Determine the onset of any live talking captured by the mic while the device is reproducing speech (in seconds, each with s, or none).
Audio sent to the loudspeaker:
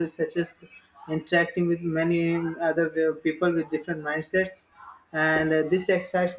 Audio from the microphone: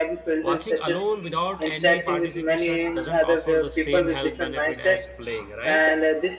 0.4 s